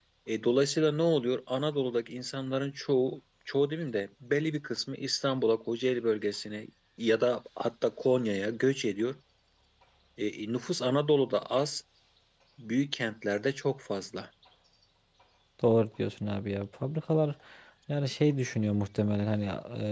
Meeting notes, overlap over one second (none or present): none